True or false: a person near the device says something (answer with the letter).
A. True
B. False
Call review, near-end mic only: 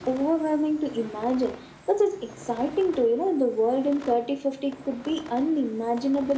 B